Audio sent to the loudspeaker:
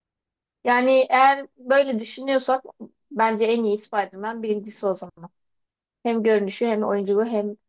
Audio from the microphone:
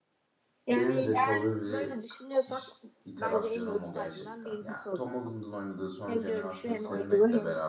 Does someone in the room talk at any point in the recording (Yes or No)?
Yes